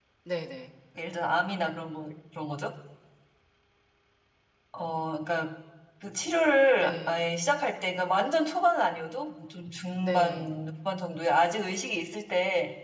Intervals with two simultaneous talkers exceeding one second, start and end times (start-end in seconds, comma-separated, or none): none